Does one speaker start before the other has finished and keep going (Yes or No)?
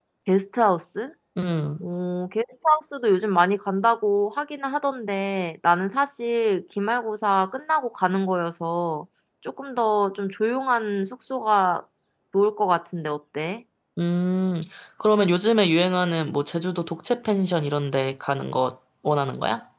No